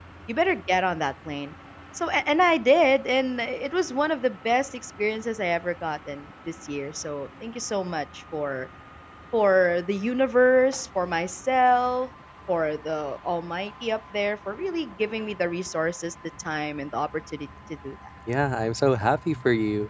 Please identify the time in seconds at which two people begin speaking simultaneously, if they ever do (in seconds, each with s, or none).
none